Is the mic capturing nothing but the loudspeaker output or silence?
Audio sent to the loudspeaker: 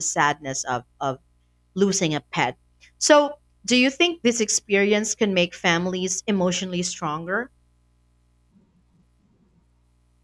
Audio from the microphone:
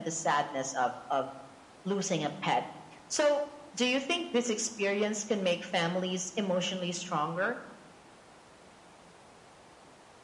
Yes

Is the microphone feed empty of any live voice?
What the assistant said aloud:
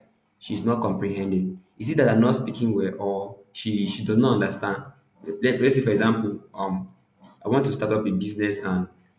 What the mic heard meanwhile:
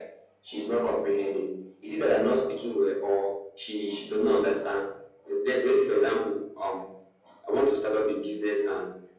Yes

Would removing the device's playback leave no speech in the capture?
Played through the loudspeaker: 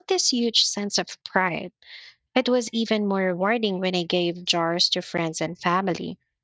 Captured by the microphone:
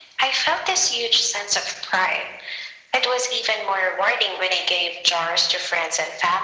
Yes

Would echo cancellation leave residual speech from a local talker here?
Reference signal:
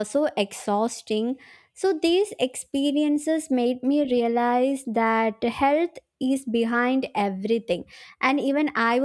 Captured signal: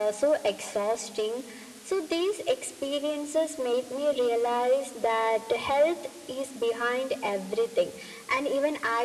No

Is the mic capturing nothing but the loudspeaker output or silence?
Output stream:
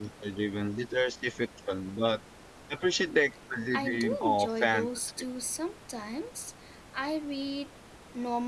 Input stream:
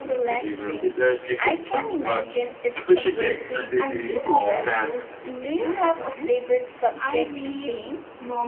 No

